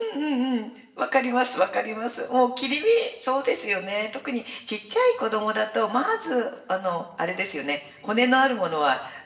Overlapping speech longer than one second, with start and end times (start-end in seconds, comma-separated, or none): none